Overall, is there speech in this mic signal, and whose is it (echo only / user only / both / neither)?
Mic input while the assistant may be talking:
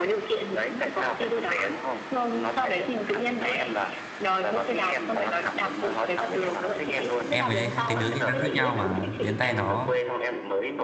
both